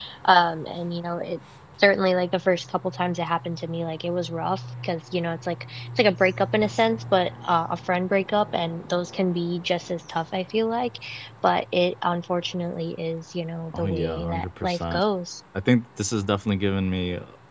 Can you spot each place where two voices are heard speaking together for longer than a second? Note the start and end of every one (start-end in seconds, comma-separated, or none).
13.7-15.0